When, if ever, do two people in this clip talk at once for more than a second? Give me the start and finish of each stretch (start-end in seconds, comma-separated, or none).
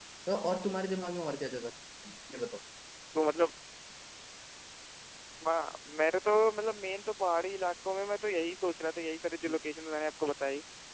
none